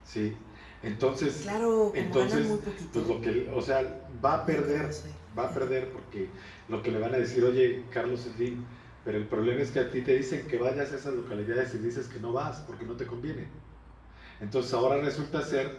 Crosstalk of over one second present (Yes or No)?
Yes